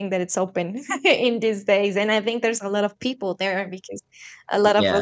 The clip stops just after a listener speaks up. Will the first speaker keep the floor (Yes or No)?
Yes